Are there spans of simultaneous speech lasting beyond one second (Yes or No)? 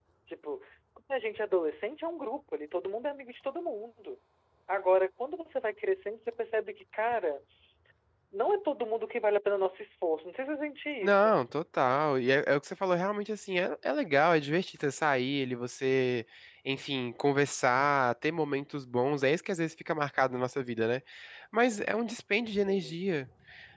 No